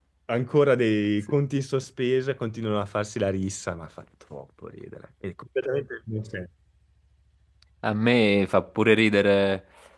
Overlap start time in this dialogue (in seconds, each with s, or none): none